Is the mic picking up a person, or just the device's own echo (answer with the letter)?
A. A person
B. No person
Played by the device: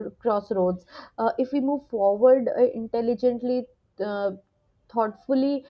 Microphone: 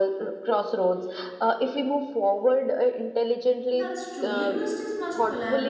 A